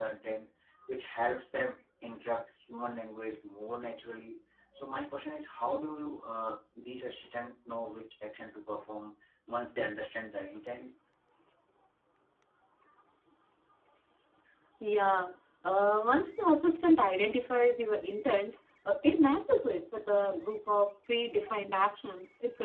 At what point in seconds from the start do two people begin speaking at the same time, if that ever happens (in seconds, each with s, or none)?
none